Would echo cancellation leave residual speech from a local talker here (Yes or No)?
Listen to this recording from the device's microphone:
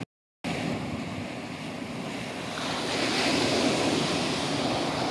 No